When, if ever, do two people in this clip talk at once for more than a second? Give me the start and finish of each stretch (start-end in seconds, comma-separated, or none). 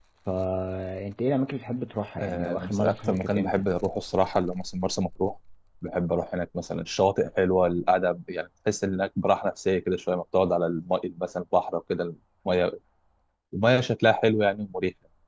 2.2-3.6